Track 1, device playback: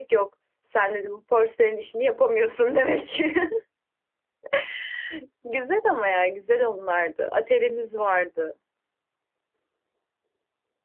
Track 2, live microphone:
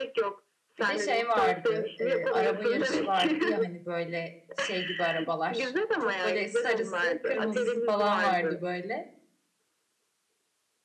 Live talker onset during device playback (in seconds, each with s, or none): 0.8 s